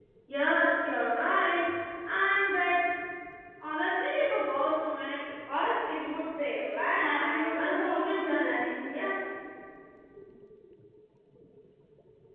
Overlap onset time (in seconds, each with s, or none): 6.9 s